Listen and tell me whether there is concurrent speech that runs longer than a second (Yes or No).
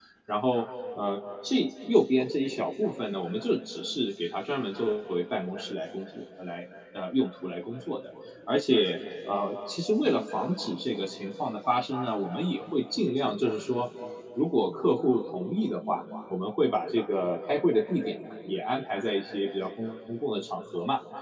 No